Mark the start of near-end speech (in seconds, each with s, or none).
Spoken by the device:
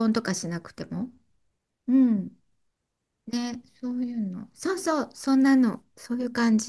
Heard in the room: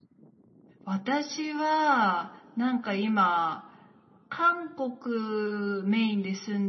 0.8 s